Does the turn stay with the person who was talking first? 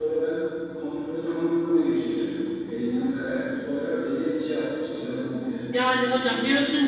No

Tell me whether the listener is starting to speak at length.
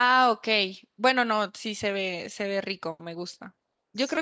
No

